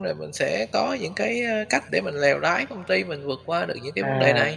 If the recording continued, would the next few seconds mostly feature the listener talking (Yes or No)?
Yes